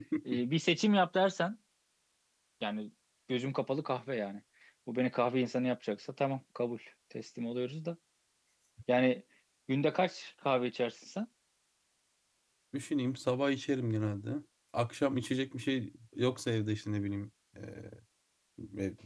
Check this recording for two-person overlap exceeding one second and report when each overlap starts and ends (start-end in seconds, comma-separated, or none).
none